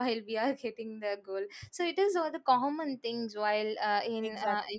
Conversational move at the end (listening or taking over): taking over